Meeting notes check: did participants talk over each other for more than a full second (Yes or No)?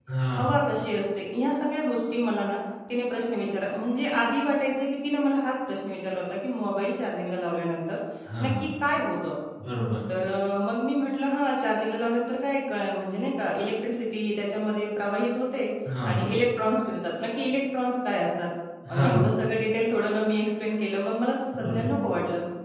No